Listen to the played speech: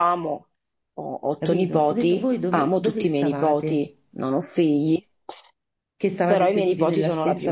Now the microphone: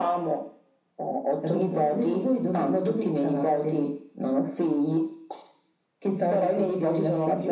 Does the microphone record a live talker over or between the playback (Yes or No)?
No